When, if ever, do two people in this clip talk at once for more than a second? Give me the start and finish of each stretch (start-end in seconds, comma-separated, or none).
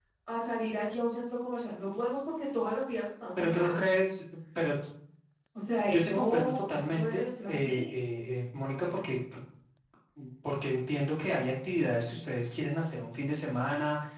5.9-7.9